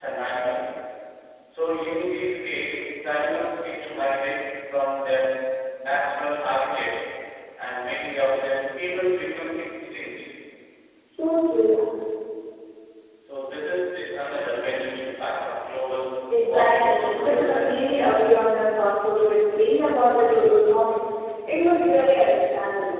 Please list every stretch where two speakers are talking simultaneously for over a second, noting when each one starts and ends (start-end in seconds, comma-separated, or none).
16.4-18.1